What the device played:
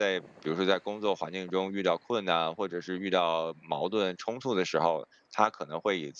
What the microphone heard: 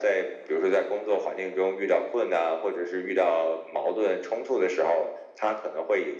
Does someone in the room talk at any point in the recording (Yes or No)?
No